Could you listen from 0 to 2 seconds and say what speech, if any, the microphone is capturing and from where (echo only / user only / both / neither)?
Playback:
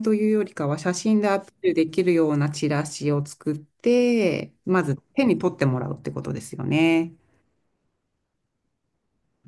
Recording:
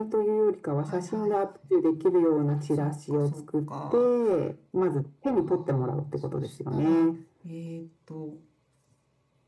both